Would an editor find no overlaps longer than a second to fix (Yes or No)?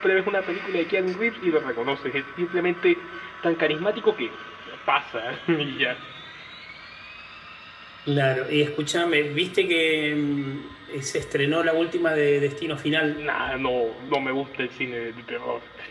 Yes